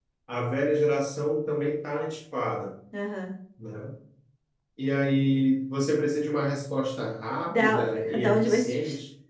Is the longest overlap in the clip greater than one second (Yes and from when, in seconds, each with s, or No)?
Yes, from 7.5 s